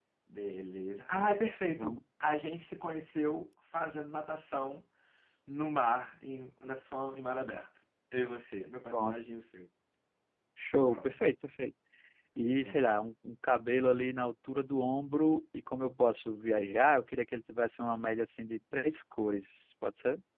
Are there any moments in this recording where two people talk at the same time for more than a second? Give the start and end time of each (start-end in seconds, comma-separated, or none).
none